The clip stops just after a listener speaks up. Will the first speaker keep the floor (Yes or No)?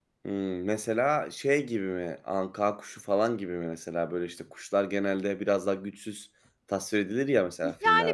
No